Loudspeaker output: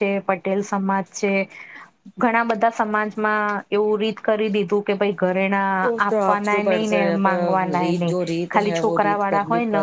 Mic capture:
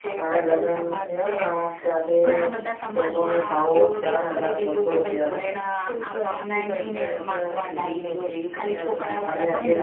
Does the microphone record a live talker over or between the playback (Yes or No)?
Yes